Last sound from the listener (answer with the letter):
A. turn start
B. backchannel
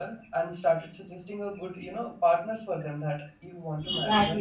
A